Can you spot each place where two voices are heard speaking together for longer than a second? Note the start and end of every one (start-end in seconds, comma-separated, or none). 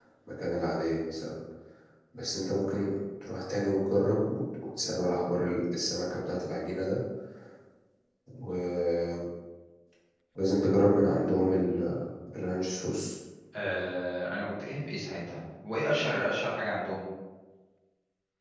none